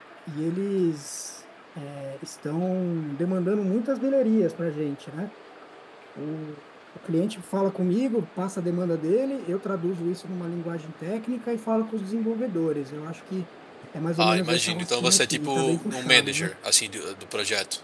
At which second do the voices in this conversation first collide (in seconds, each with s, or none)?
14.2 s